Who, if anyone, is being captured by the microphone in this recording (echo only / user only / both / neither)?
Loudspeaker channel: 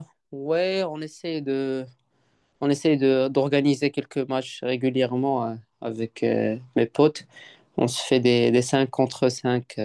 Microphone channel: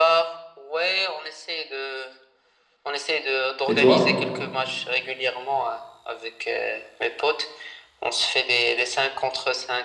both